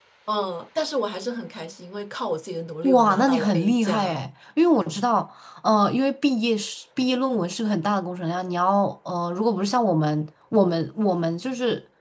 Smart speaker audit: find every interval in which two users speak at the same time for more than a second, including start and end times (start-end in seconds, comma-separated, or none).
2.8-4.2